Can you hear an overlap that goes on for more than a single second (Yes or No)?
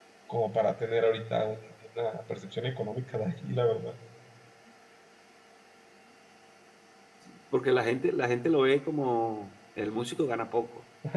No